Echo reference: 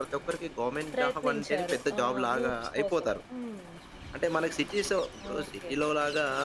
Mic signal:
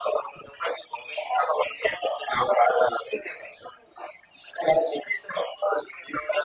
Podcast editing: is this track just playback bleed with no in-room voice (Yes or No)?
Yes